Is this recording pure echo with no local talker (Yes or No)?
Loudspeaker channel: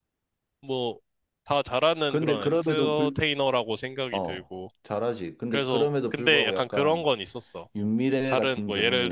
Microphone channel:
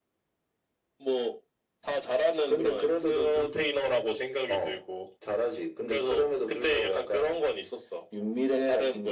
Yes